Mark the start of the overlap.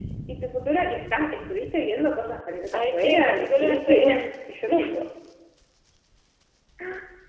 2.7 s

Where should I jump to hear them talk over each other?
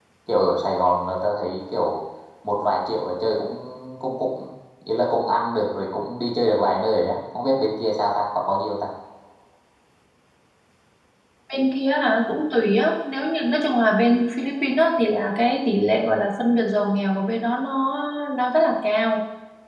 none

